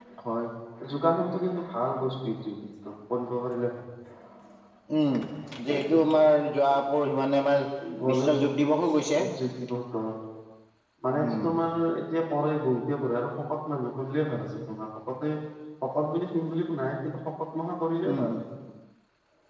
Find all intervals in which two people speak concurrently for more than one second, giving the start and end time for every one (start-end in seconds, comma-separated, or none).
none